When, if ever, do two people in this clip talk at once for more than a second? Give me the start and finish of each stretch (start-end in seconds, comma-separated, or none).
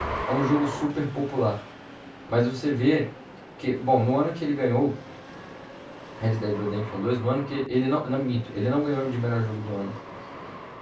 none